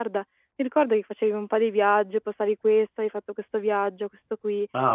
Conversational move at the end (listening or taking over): listening